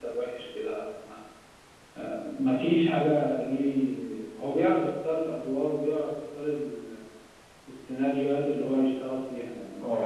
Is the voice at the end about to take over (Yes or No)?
Yes